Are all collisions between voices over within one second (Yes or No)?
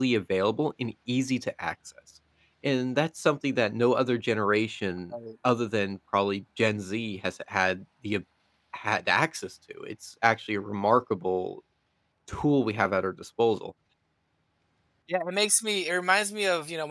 Yes